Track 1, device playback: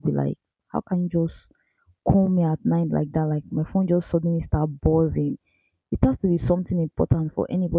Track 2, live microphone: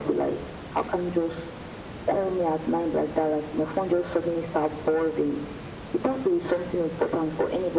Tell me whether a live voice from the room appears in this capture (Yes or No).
No